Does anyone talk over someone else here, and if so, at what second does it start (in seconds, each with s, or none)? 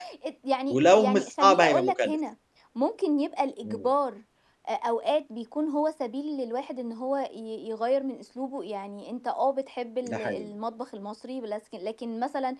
0.7 s